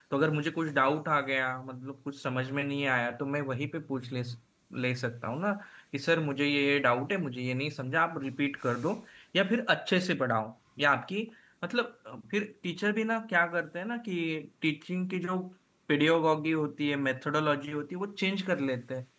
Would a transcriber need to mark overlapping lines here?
No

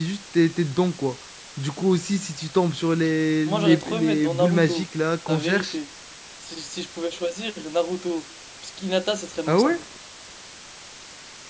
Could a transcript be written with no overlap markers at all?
No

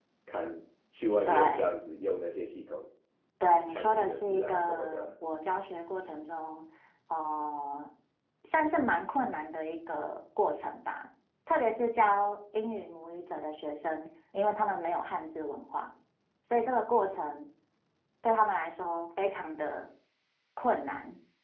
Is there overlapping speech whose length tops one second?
Yes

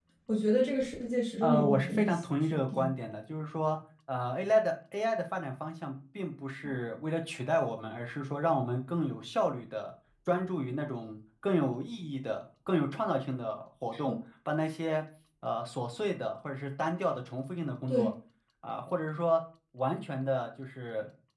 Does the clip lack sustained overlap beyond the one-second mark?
No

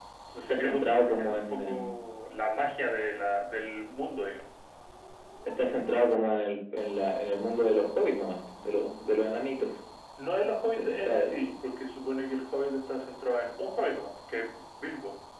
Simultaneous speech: Yes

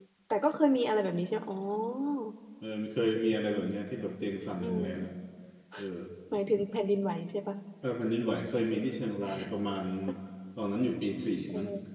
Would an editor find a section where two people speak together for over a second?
No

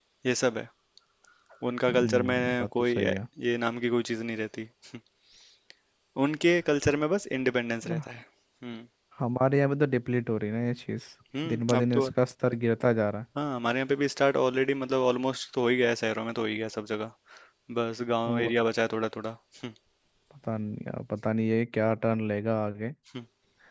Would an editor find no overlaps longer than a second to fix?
No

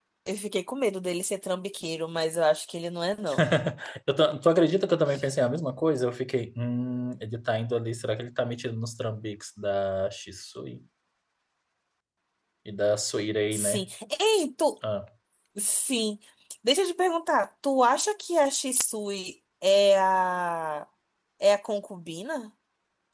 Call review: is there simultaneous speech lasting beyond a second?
No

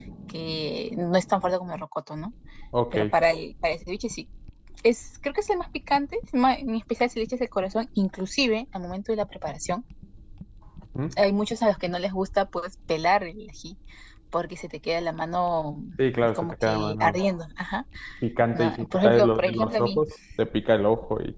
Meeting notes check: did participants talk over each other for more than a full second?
Yes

